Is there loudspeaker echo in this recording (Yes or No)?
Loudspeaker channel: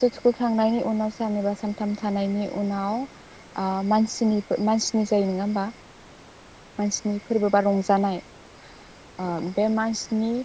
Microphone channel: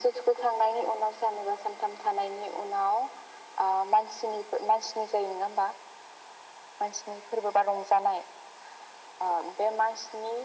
Yes